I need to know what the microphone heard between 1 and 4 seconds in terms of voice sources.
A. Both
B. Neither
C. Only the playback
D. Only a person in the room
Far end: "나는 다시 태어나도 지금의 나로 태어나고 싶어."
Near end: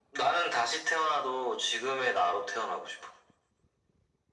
C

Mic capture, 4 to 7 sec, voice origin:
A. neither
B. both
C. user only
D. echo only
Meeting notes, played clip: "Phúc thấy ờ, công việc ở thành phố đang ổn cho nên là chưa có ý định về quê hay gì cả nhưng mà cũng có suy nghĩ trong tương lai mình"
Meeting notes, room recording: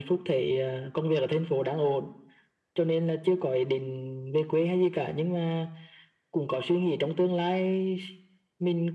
D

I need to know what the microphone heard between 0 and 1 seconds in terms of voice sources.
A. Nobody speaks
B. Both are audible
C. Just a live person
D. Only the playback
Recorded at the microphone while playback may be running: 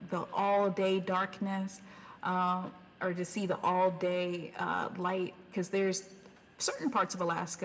D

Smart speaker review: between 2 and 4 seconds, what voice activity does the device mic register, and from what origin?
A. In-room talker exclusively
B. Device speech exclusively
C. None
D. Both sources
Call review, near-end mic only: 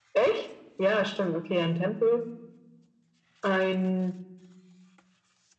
B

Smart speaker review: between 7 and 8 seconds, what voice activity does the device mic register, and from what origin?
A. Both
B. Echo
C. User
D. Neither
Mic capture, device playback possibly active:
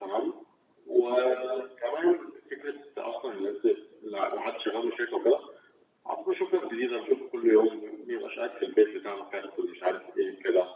B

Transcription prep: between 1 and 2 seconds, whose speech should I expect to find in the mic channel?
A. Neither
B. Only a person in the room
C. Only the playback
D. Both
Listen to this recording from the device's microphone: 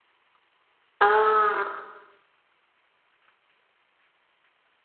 B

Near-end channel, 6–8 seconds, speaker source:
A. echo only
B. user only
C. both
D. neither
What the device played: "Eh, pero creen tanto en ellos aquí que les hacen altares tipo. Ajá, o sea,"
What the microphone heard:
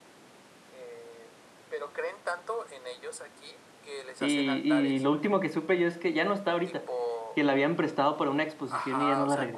C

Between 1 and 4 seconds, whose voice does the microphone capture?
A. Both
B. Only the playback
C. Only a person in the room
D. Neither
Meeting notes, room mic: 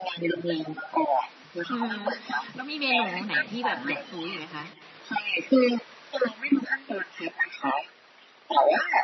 A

